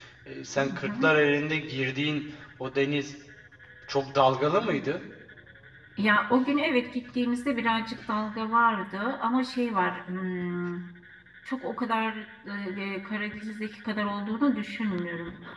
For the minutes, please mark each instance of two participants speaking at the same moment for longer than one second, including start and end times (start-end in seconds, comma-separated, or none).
none